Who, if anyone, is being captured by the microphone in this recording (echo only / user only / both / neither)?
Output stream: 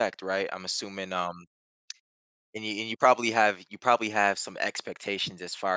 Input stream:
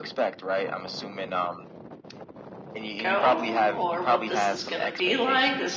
both